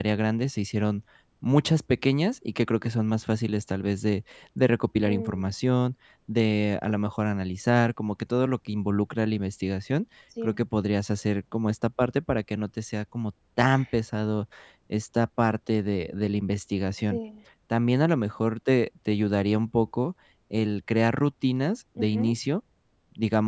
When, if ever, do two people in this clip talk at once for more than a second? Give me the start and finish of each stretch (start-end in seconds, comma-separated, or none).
none